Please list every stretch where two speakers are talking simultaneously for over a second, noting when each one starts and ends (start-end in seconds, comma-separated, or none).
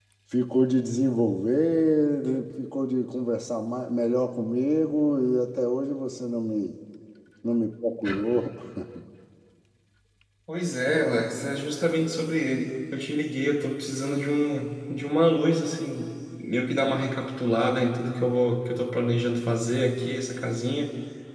none